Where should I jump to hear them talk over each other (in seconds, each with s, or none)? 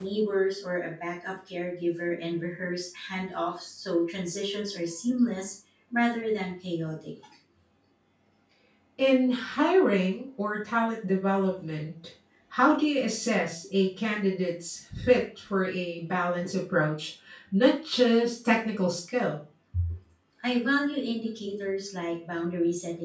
none